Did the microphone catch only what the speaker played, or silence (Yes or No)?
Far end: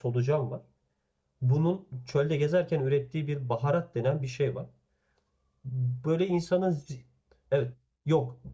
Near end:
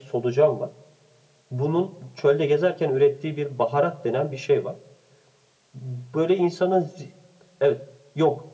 Yes